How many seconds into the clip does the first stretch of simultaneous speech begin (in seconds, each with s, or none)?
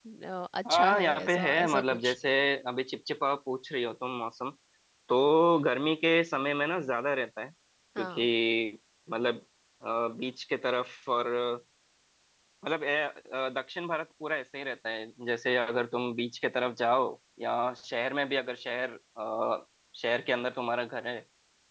0.7 s